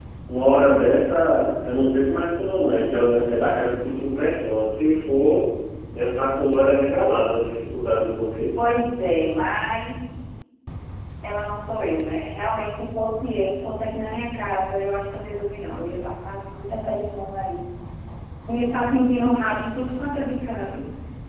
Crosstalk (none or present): none